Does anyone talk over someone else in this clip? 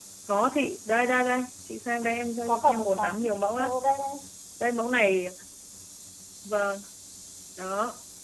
Yes, from 2.5 s

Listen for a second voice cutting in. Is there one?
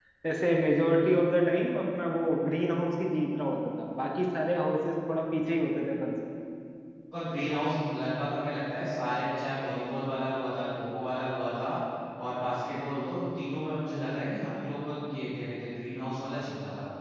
No

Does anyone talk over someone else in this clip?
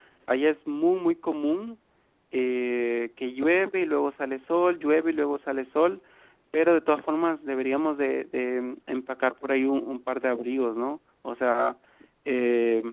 No

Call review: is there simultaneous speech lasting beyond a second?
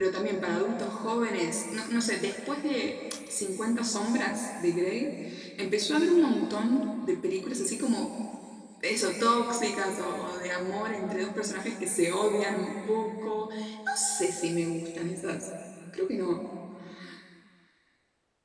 No

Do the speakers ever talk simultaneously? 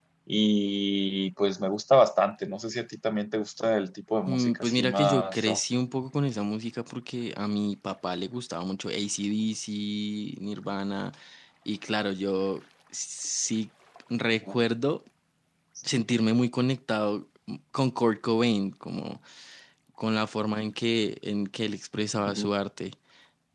Yes, from 4.3 s

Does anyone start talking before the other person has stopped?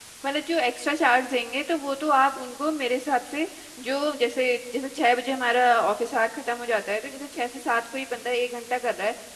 No

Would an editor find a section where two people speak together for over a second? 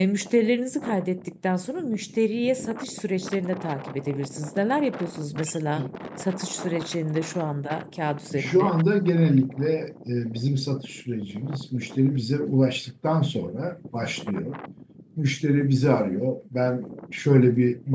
No

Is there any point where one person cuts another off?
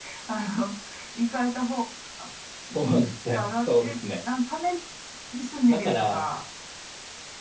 Yes, from 2.8 s

